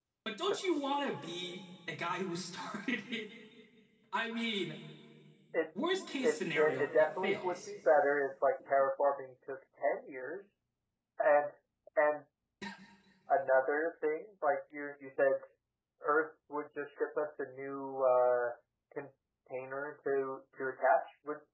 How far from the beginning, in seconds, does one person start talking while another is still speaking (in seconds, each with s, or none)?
6.2 s